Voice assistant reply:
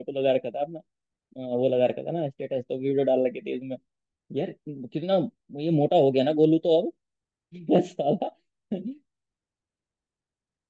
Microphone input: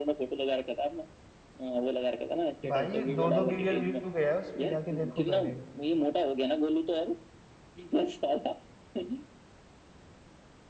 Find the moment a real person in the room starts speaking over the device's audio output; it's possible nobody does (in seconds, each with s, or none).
2.7 s